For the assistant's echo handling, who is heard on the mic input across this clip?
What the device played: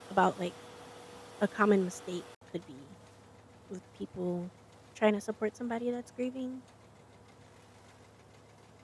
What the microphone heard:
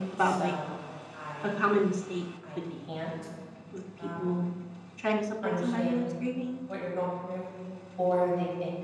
both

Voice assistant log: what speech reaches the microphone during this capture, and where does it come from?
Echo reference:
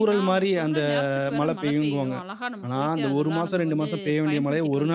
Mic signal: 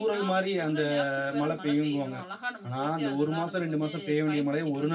echo only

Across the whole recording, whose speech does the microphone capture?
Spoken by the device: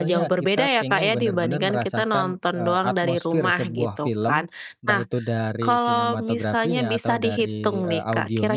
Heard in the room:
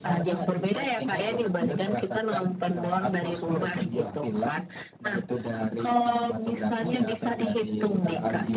echo only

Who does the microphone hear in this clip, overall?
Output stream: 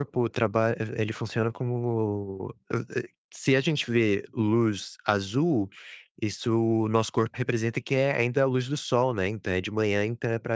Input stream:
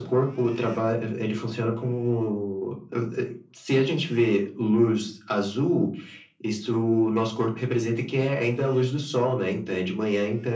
echo only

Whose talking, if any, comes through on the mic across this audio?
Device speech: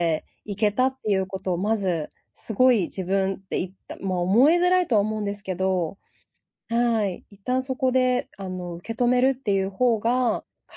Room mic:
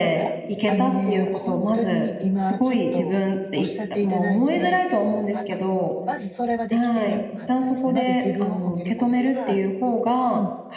both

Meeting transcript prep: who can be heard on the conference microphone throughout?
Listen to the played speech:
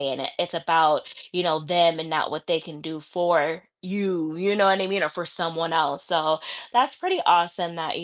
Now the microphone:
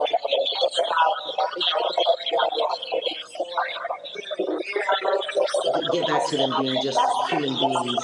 both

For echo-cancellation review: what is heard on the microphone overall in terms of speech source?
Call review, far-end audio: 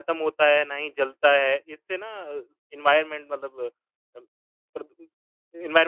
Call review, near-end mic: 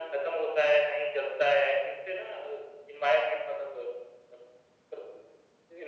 echo only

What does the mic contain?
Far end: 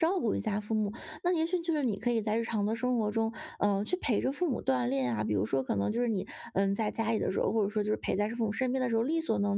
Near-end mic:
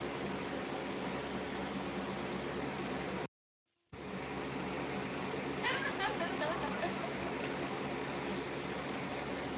neither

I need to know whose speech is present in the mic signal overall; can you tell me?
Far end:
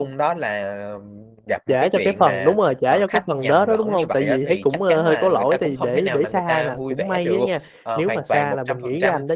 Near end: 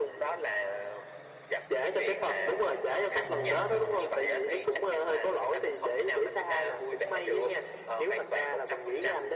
both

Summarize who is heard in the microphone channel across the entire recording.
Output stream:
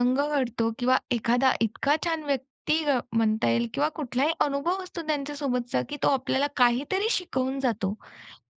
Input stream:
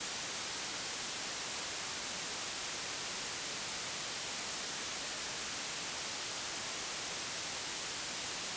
neither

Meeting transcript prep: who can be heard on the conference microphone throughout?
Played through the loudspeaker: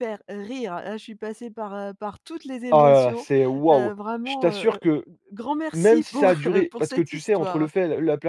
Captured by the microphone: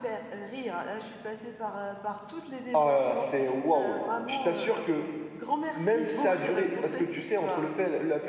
echo only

